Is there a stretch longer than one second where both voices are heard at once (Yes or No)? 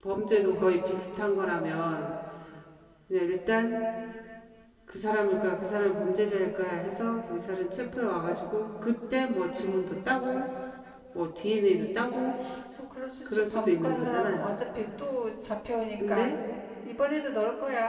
Yes